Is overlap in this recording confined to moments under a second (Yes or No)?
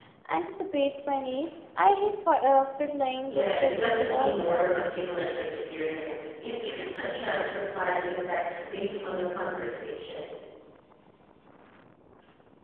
No